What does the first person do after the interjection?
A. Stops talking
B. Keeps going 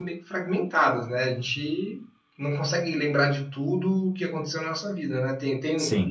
B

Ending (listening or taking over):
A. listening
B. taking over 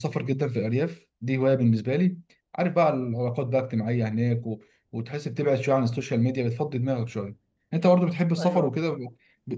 A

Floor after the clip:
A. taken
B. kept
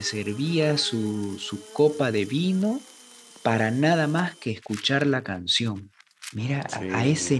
B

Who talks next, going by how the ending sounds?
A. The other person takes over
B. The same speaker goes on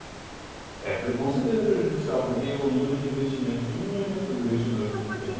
A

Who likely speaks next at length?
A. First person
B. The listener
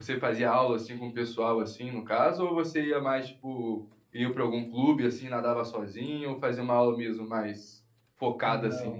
B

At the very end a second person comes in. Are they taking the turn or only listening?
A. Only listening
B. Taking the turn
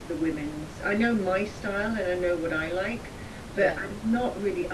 A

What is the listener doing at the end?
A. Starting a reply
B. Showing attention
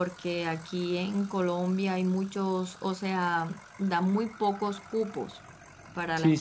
A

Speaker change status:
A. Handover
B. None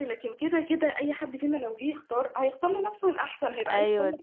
A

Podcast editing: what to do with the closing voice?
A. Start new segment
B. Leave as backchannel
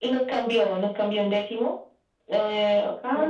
B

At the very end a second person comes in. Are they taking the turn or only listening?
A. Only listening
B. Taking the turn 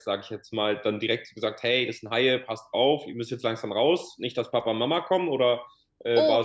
B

